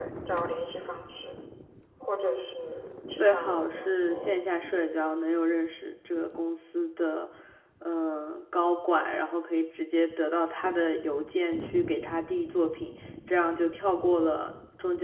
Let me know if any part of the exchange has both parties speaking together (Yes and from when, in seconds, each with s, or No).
Yes, from 3.1 s